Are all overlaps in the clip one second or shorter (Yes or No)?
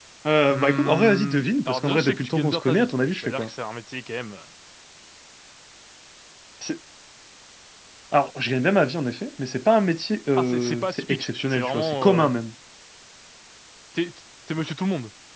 No